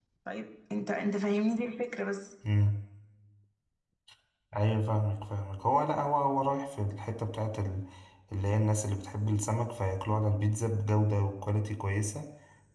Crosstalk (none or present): none